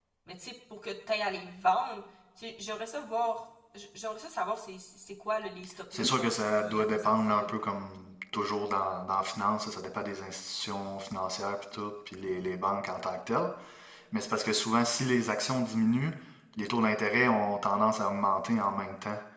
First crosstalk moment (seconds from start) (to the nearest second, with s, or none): 6 s